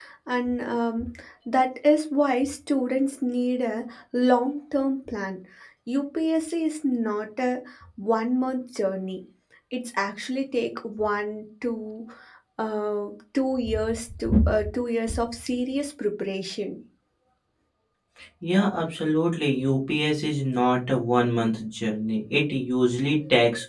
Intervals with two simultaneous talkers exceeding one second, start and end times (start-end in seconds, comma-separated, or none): none